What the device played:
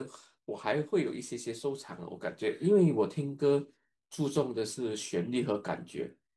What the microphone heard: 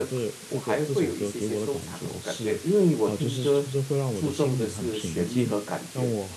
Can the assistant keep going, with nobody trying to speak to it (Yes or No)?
No